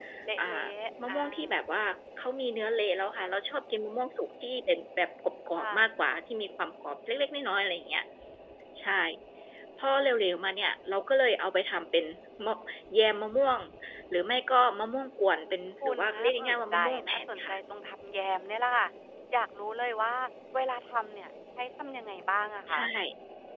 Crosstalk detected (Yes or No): Yes